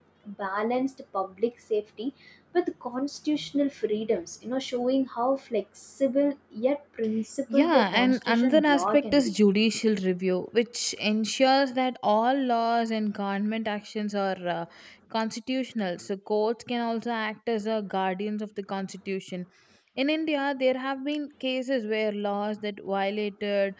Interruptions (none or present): present